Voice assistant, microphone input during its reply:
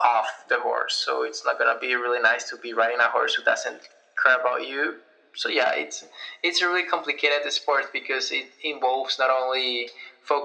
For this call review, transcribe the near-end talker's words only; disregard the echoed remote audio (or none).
none